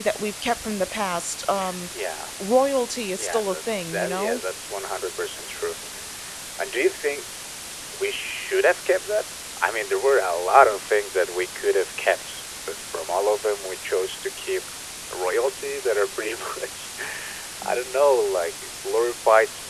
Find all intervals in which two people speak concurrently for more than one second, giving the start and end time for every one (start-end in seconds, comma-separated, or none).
3.2-4.4